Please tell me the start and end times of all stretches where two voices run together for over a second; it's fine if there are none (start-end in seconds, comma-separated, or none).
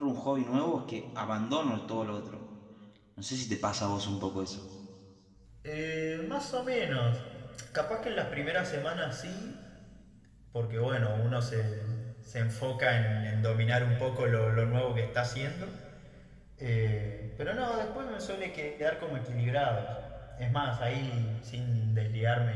none